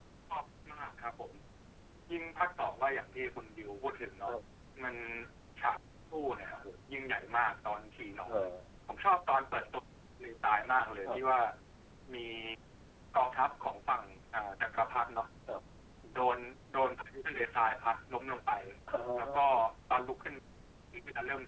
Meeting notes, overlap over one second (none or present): none